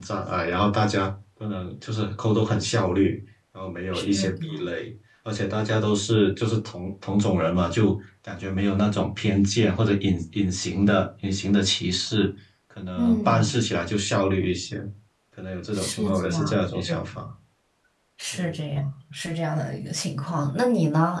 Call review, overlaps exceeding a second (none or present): present